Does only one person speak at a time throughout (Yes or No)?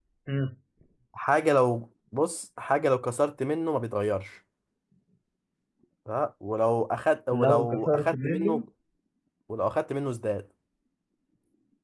No